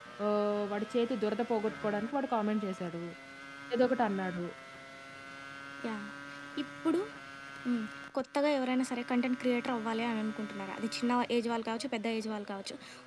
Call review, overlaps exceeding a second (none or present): none